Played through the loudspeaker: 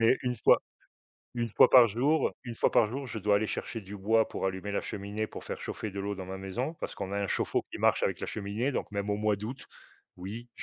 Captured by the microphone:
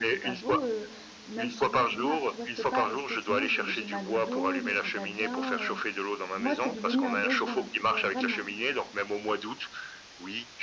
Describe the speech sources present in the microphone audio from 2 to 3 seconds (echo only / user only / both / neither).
both